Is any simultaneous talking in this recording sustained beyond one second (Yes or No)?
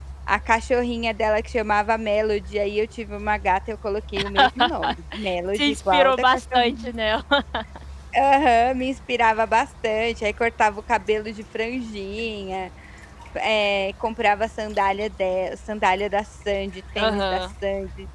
Yes